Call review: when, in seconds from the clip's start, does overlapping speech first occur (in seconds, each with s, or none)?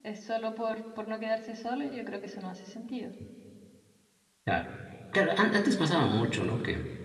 none